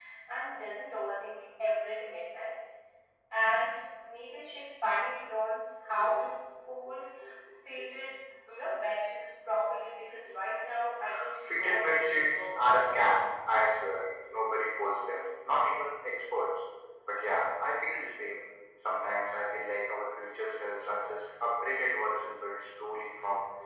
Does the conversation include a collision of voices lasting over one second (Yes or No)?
Yes